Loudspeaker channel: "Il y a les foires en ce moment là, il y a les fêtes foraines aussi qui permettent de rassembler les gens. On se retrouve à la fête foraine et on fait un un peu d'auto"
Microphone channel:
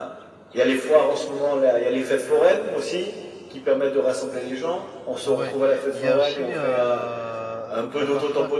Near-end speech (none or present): present